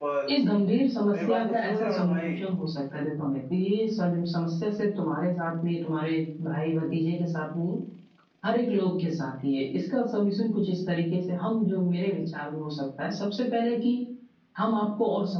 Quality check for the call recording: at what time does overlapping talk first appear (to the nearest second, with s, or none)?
1 s